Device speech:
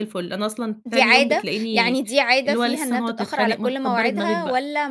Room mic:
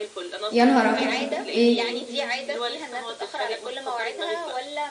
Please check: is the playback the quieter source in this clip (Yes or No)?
Yes